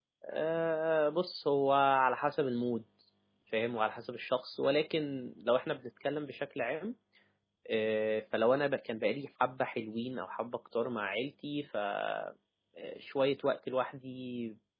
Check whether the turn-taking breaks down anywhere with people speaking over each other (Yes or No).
No